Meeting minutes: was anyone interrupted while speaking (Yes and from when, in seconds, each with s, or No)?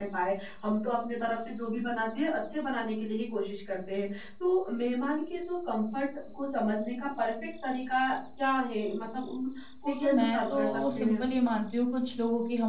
Yes, from 9.9 s